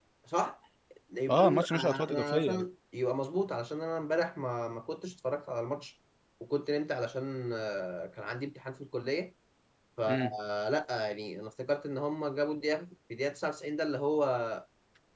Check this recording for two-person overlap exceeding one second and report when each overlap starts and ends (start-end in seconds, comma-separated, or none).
1.3-2.6